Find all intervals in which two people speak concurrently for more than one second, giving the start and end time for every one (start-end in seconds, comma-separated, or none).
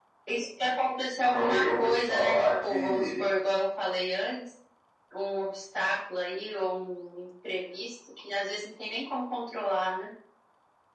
1.2-3.2